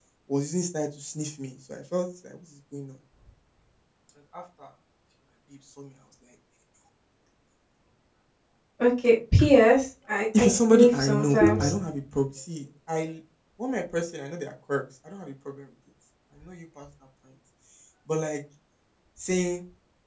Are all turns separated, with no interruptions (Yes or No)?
No